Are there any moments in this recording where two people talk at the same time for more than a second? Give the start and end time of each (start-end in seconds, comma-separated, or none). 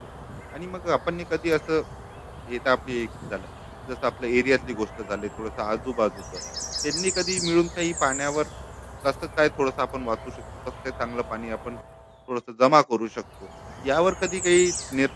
none